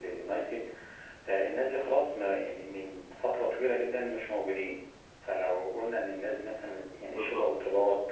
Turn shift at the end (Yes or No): No